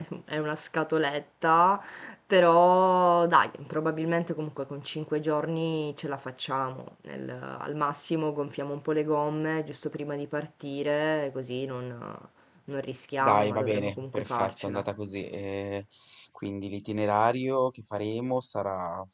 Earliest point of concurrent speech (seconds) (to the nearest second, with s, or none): 13 s